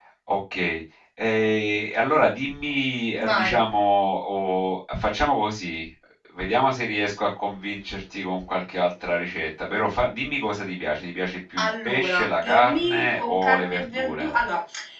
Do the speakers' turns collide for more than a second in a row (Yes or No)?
Yes